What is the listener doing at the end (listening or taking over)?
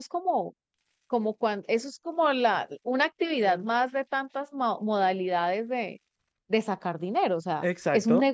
listening